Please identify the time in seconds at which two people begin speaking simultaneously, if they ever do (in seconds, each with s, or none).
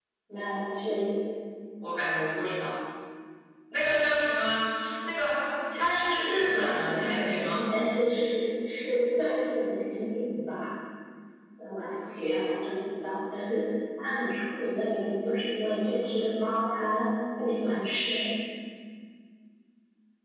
5.7 s